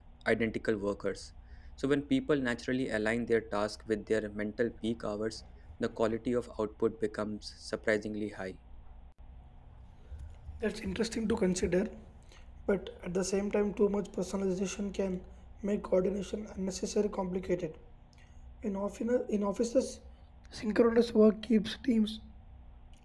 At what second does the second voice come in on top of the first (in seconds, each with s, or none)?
none